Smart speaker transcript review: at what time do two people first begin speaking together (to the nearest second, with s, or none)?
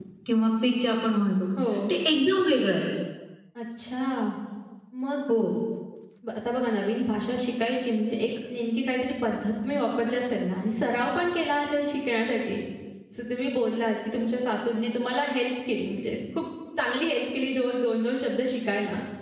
none